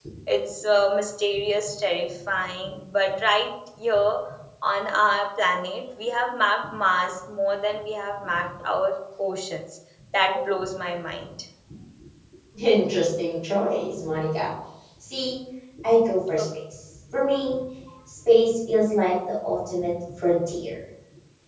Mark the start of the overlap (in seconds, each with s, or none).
none